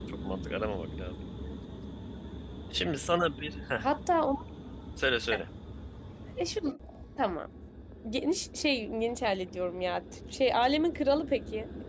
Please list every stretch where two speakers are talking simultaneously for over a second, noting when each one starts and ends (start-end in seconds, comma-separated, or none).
none